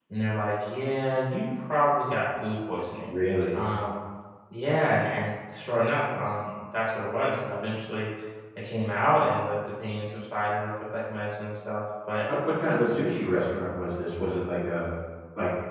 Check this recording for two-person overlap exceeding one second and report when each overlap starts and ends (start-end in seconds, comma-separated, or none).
none